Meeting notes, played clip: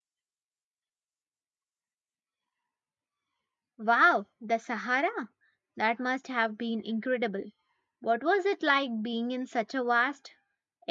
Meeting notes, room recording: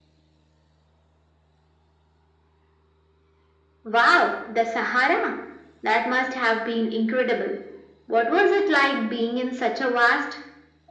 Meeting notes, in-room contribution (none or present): none